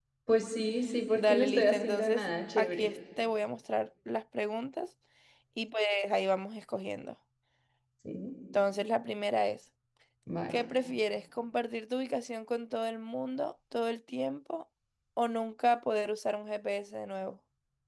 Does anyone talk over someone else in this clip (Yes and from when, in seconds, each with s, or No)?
Yes, from 1.1 s